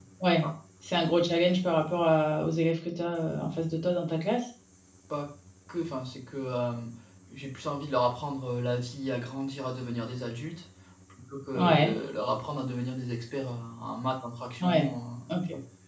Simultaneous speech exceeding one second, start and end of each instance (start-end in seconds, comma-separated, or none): none